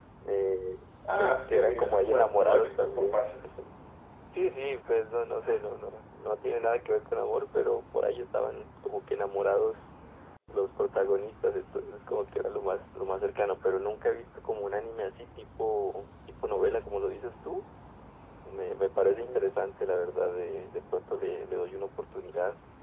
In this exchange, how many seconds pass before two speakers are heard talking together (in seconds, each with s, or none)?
1.2 s